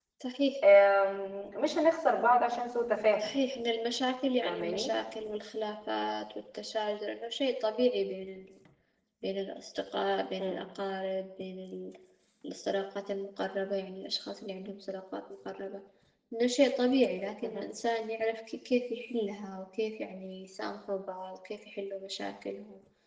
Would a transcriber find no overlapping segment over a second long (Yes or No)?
Yes